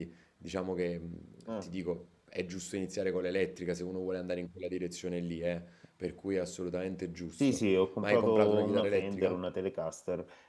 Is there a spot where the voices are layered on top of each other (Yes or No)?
Yes